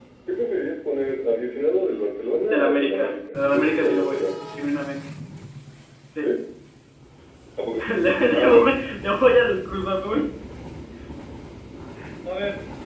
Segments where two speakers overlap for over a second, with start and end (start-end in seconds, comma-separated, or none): 2.5-4.2